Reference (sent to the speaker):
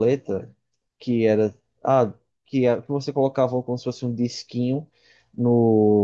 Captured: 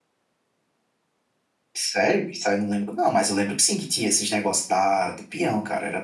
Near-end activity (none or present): present